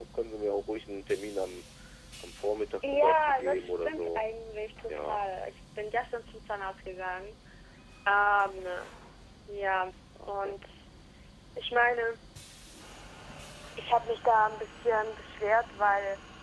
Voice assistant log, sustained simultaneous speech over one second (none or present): present